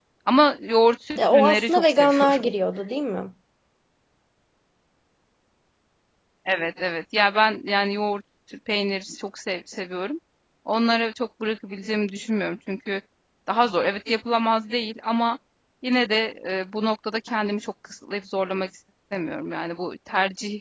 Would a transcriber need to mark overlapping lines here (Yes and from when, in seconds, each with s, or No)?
Yes, from 1.2 s